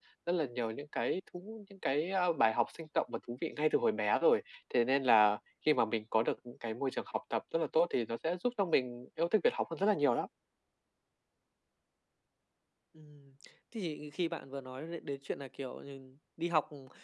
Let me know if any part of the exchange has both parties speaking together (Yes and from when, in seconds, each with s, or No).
No